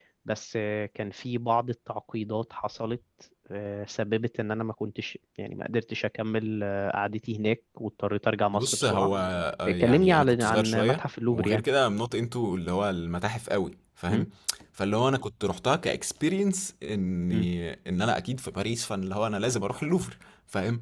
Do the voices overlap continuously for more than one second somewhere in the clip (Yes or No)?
Yes